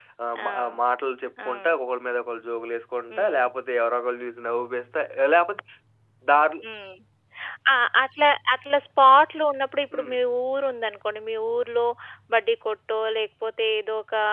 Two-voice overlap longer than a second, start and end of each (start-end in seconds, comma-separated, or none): none